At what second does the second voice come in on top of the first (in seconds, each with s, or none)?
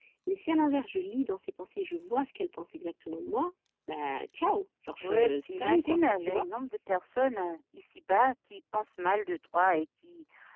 5.0 s